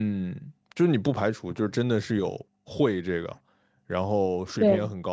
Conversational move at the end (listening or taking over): listening